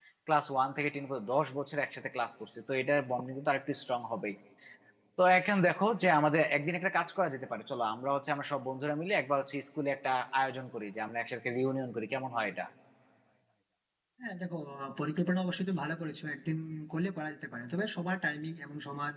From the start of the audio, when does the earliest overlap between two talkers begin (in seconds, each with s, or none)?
none